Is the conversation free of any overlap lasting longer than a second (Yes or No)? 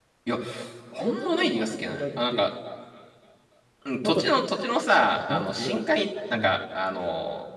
No